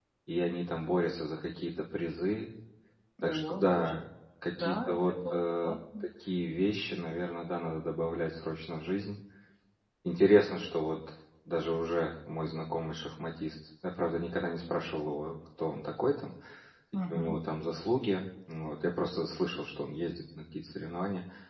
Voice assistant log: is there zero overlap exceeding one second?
No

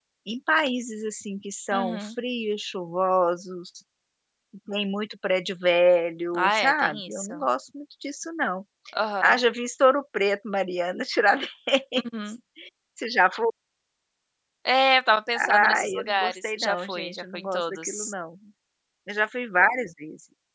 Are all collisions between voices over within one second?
No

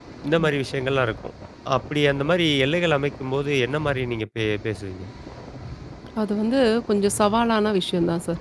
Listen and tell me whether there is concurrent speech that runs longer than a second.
No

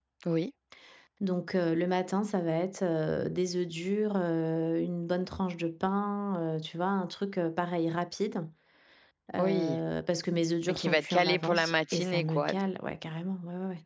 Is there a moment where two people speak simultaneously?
Yes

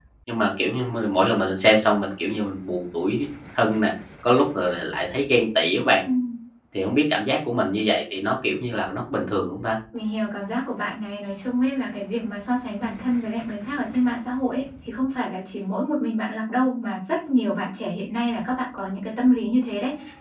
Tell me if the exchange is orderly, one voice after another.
Yes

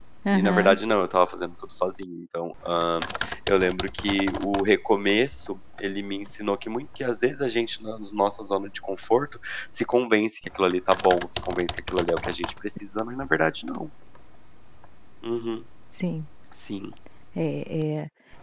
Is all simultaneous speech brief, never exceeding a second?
Yes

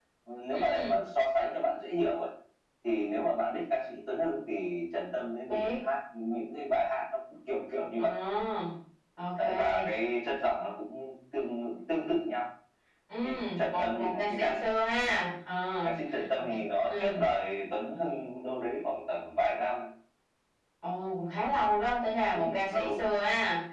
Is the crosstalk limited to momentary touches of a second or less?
No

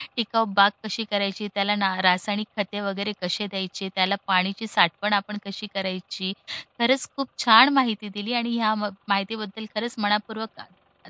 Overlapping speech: No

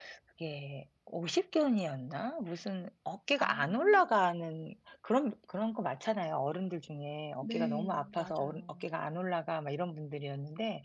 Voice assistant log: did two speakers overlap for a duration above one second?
Yes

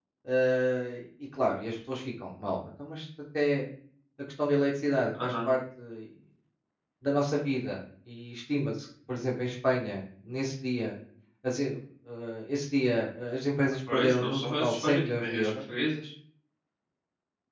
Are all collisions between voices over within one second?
No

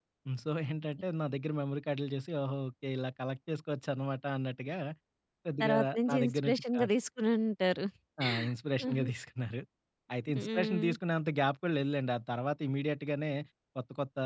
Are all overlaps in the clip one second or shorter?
No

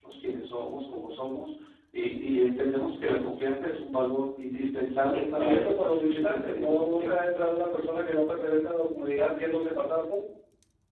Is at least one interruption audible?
Yes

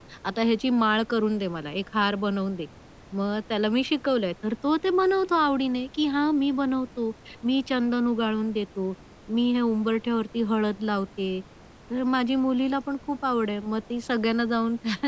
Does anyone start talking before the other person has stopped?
No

